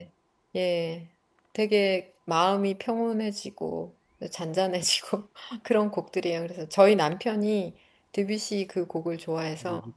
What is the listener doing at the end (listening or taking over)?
taking over